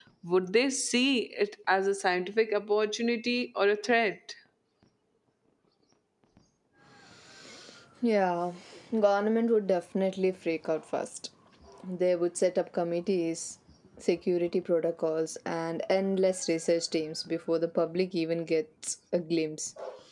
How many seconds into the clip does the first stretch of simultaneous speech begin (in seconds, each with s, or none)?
none